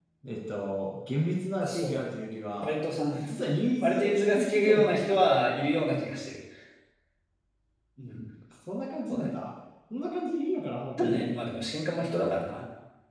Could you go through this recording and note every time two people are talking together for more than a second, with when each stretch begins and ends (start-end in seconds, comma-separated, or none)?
3.8-5.1